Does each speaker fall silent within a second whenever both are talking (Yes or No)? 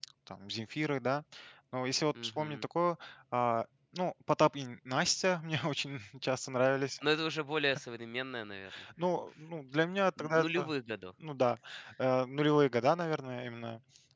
Yes